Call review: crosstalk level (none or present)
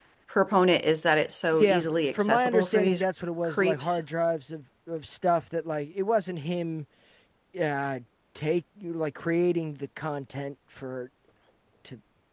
present